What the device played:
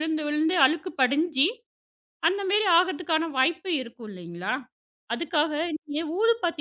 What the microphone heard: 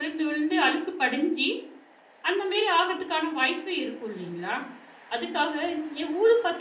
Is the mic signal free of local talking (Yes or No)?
Yes